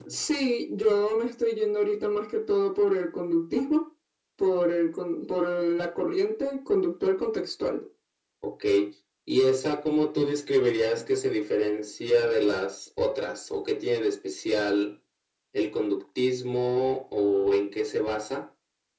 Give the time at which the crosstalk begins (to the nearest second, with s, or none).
none